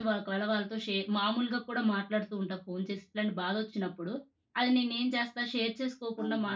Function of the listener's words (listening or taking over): listening